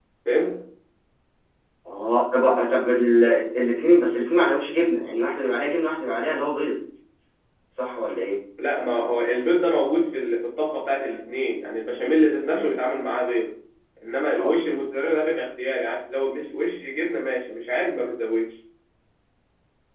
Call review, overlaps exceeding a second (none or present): none